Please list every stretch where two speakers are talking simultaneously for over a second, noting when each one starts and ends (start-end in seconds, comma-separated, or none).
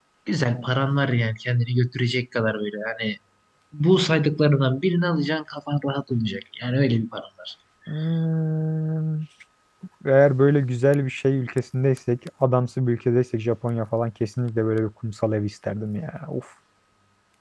none